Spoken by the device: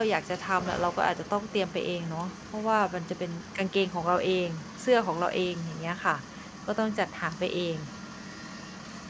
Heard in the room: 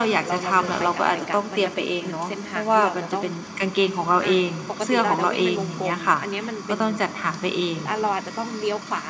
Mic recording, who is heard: both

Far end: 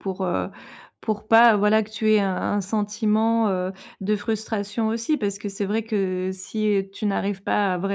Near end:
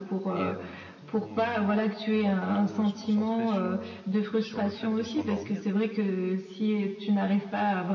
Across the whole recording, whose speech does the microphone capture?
both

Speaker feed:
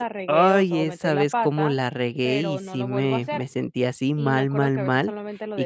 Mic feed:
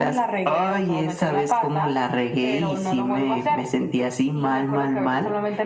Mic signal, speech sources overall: echo only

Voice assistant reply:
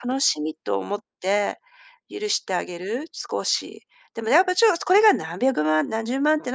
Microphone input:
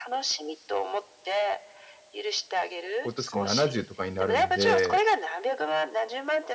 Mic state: both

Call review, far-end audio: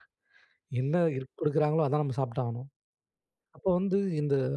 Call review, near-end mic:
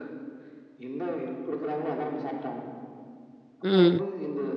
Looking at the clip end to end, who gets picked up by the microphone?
both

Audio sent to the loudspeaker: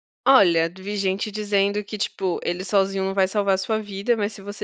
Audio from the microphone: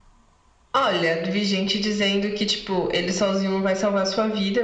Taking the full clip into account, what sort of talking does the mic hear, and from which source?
echo only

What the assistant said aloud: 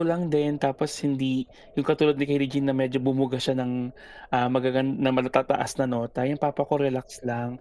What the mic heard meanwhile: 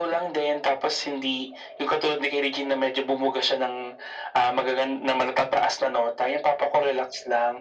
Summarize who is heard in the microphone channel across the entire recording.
echo only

